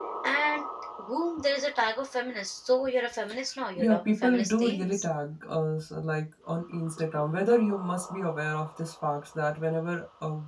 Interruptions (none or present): present